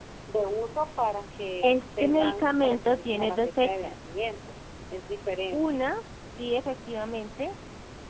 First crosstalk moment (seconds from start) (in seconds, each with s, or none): 1.6 s